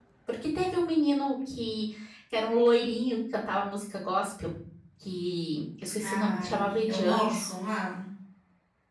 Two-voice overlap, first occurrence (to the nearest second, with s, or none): 6 s